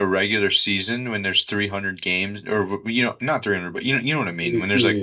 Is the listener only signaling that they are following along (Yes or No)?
Yes